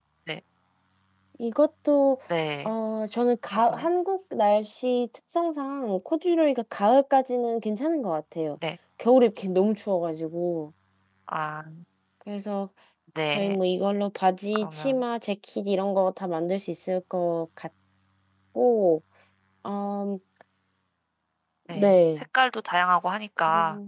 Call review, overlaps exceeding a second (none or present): none